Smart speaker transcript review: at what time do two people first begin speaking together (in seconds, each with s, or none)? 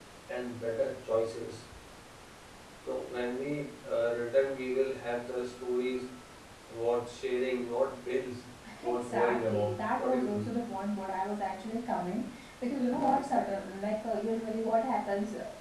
8.7 s